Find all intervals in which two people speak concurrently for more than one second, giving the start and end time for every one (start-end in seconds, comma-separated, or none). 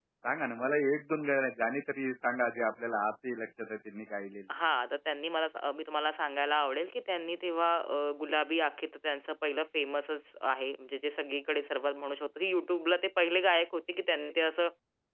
none